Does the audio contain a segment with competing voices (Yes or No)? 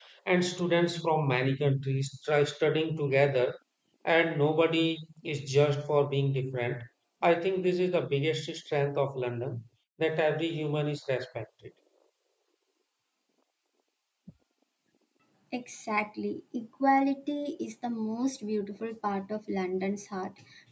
No